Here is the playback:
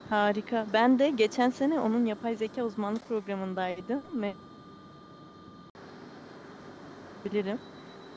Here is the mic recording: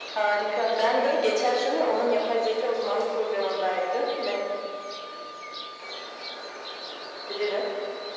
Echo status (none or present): present